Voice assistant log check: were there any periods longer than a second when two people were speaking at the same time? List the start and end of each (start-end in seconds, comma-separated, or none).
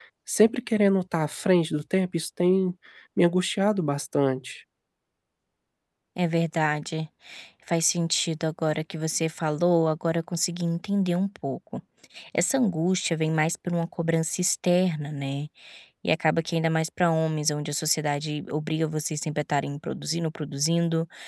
none